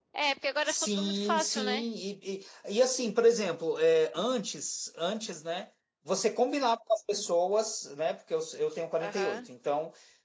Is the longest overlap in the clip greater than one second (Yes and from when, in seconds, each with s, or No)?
Yes, from 0.7 s